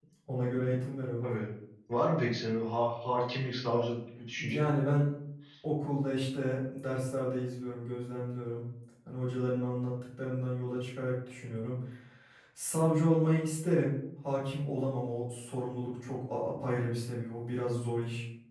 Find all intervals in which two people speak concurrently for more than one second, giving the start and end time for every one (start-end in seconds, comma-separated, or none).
none